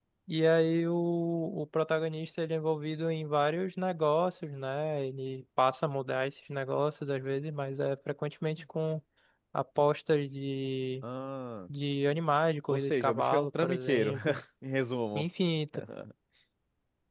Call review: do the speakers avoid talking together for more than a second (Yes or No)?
No